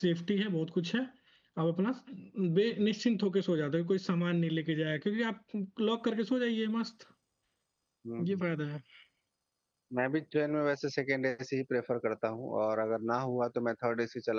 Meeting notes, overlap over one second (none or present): none